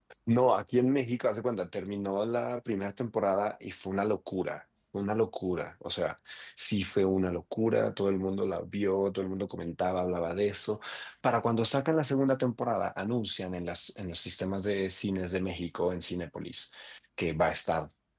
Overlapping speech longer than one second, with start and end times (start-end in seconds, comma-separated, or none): none